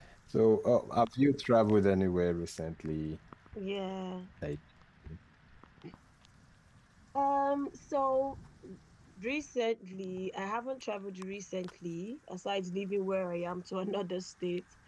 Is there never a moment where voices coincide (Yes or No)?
Yes